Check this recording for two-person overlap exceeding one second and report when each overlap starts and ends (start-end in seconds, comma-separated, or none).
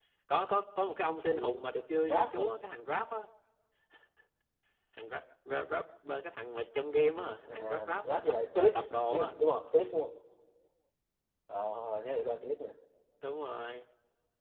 7.5-9.3